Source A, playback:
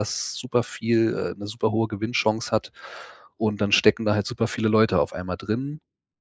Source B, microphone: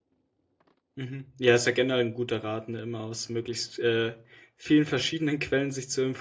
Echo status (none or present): none